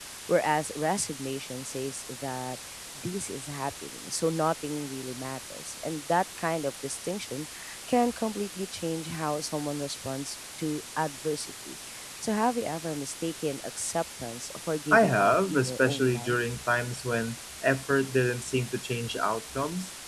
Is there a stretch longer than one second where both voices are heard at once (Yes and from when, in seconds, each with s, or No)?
Yes, from 14.9 s